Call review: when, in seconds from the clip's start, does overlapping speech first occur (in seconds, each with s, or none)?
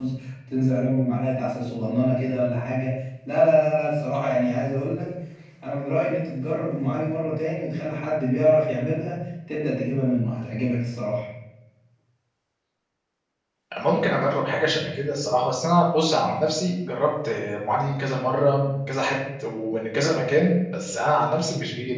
none